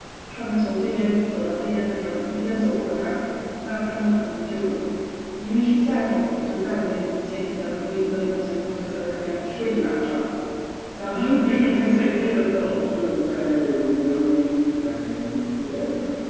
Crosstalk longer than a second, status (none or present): none